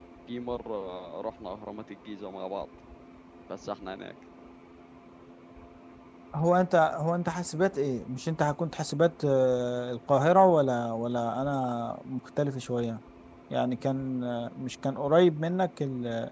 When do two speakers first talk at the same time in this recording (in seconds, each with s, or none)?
none